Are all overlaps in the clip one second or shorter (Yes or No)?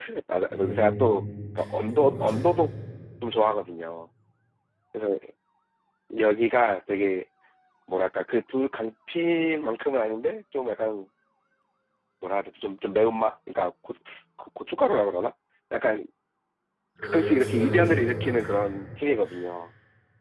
No